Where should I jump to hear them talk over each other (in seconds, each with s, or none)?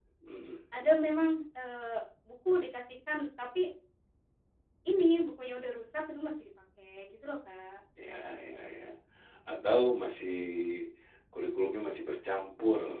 none